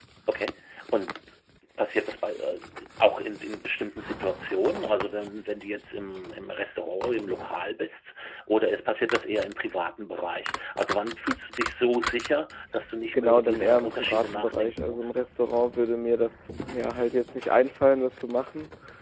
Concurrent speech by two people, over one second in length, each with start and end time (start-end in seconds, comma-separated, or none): 13.1-15.2